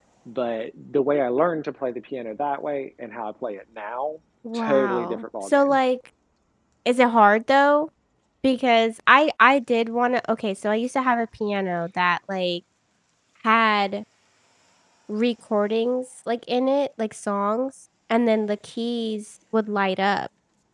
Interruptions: present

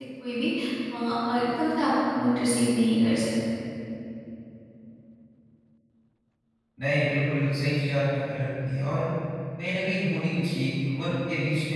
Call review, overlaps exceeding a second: none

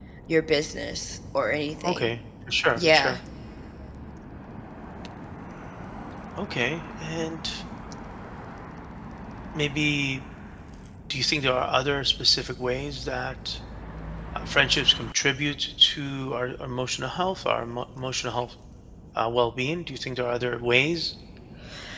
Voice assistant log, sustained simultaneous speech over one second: none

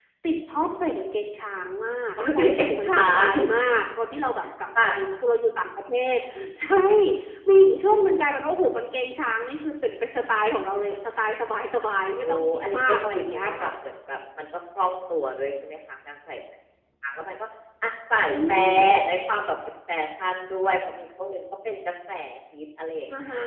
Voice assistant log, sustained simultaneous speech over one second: present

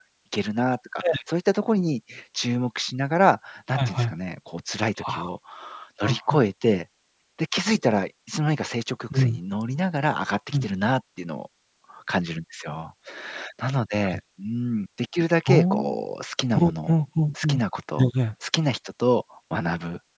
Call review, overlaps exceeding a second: none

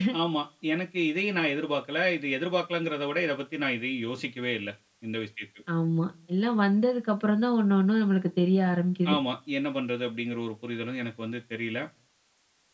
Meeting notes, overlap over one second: none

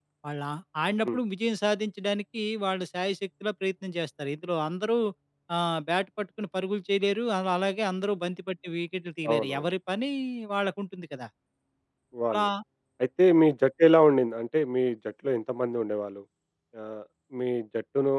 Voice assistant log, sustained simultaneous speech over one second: none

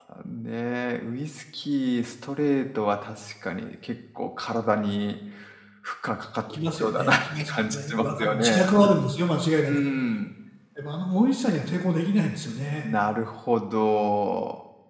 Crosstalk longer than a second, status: present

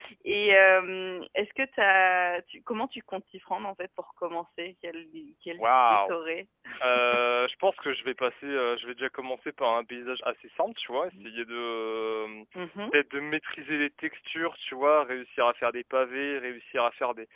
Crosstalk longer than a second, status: none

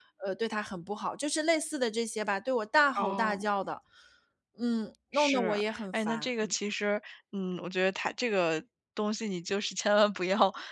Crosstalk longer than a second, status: present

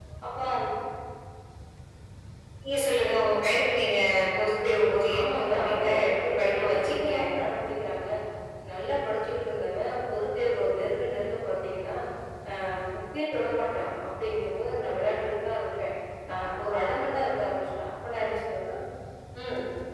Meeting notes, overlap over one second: present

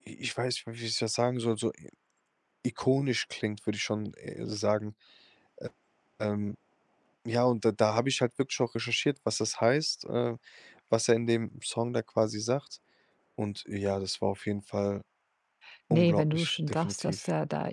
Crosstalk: present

